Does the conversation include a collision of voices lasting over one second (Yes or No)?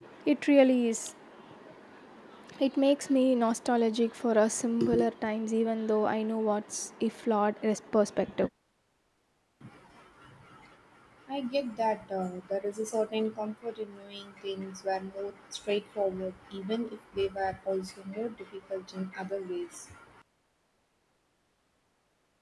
No